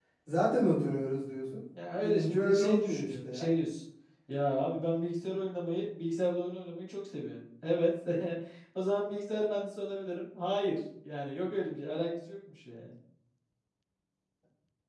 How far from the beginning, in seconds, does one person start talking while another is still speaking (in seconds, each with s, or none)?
2.0 s